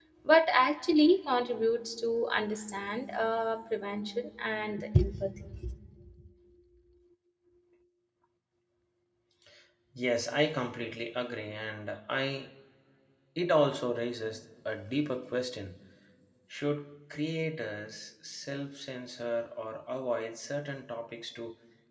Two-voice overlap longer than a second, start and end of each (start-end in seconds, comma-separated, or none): none